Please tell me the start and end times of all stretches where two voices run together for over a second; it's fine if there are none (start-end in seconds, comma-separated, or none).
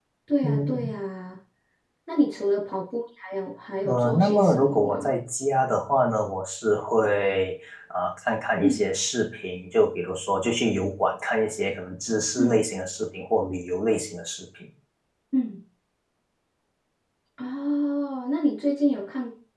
3.8-5.1